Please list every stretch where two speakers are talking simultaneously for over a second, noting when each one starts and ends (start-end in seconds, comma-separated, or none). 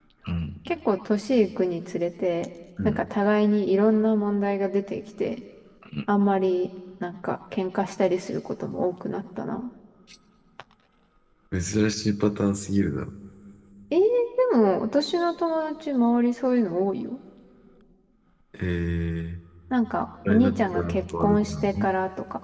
20.3-21.9